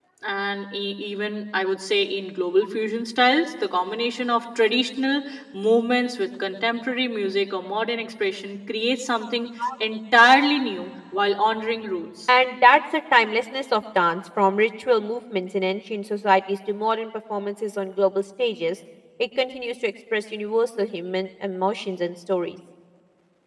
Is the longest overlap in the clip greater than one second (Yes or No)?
No